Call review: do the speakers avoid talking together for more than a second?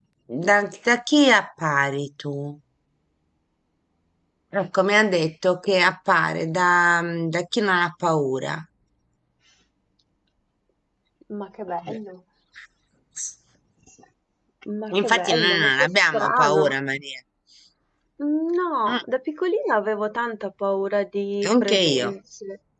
No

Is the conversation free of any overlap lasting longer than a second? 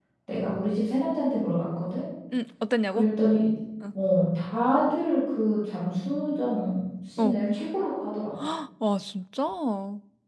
Yes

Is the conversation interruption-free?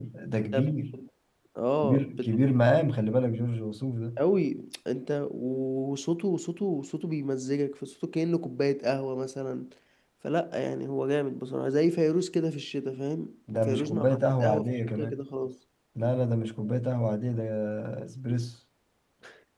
No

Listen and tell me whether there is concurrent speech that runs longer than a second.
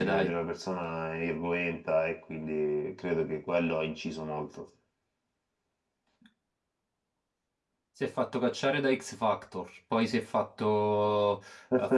No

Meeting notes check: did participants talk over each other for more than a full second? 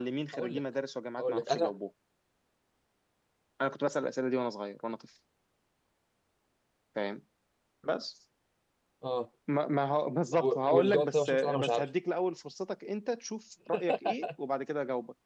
Yes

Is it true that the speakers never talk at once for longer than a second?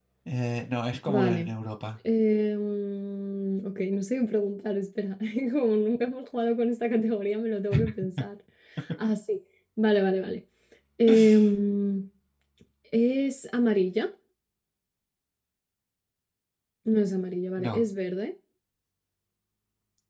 Yes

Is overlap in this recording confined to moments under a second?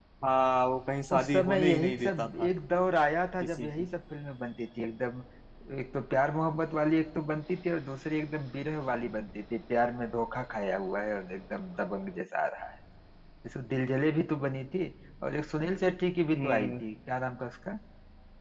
No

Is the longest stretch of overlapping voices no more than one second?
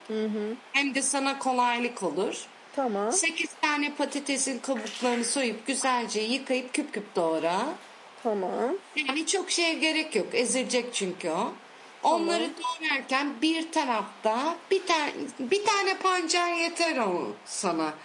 Yes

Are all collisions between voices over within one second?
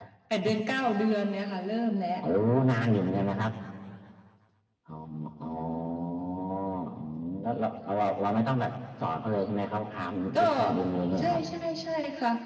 Yes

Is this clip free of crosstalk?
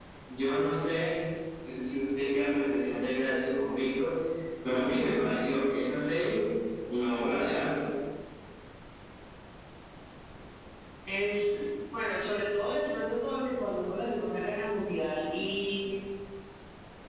Yes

